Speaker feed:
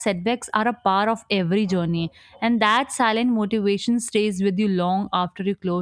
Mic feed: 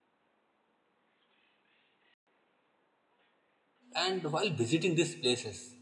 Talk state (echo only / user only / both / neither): user only